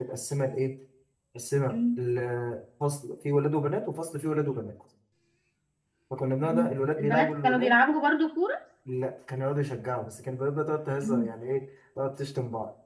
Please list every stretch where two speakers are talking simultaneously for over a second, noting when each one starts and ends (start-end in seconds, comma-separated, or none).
6.4-7.8